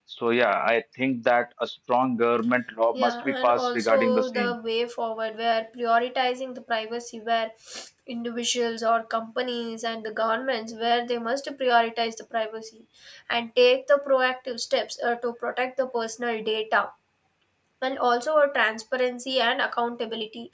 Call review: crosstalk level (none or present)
present